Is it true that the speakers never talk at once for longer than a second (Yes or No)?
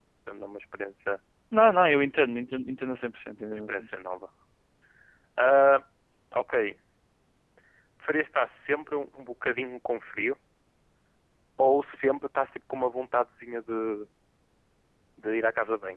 Yes